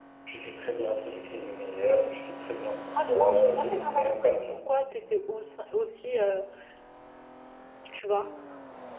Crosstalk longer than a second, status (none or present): present